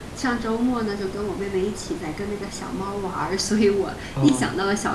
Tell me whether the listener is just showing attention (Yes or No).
Yes